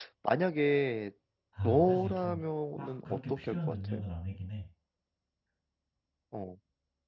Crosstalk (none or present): present